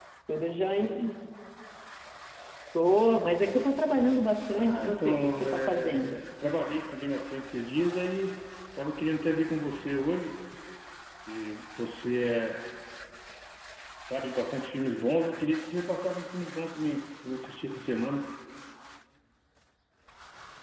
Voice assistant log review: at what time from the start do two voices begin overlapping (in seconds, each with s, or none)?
4.5 s